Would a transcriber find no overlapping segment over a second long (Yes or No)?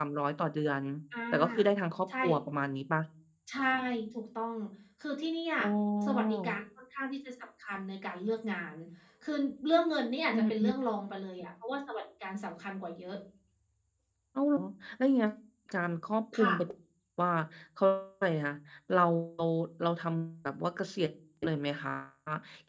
Yes